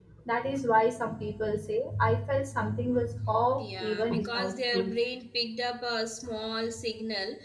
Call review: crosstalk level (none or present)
present